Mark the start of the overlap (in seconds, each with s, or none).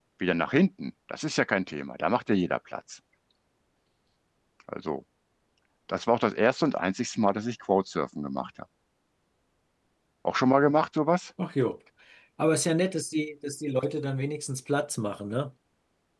none